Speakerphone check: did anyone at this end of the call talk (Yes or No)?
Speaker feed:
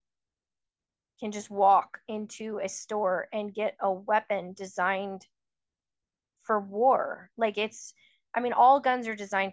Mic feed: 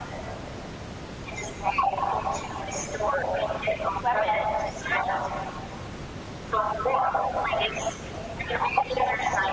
Yes